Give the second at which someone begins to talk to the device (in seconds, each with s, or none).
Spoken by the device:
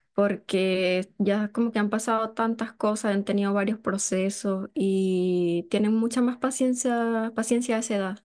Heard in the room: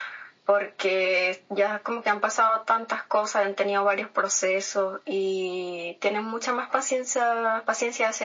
none